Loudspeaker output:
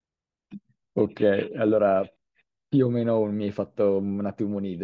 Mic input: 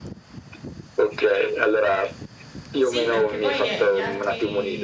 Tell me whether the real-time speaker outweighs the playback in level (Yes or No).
No